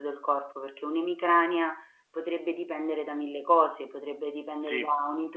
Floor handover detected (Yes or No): No